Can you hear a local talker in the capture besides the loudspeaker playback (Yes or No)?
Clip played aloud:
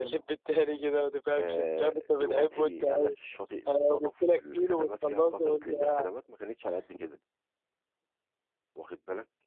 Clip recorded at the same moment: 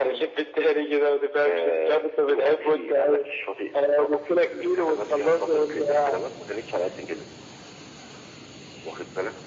No